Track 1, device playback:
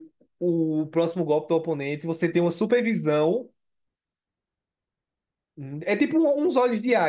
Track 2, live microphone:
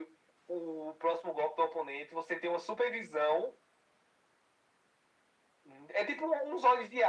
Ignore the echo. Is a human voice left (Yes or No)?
No